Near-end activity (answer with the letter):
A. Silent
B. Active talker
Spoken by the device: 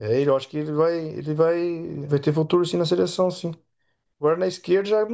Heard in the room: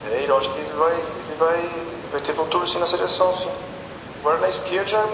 A